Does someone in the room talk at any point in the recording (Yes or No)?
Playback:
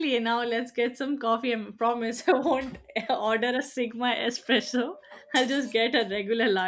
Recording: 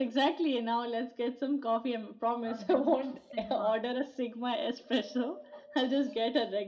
Yes